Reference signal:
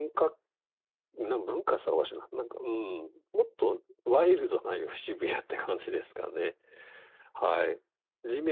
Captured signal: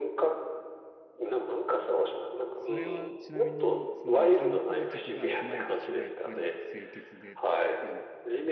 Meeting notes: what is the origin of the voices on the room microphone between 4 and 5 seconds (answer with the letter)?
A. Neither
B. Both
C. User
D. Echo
B